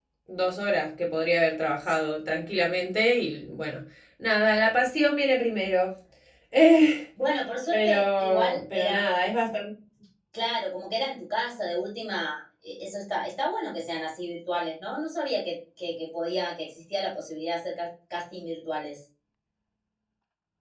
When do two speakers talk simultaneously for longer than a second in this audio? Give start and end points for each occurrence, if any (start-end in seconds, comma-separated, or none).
7.7-9.2